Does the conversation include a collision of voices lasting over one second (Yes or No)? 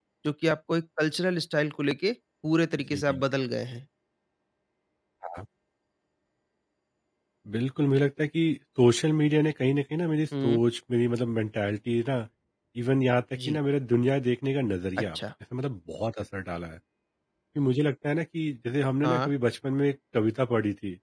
No